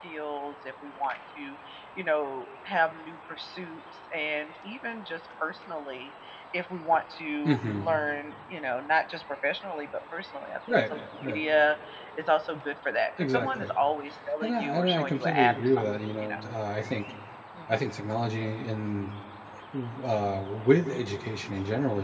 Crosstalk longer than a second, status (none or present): present